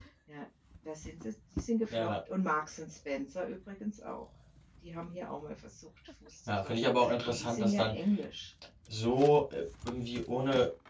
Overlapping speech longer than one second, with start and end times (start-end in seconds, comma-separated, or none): 6.5-7.9